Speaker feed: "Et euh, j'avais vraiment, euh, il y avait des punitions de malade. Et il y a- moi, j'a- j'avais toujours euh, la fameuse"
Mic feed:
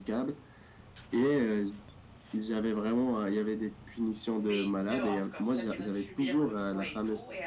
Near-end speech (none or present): present